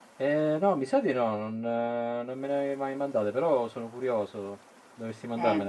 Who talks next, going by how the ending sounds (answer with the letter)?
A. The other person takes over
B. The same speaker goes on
A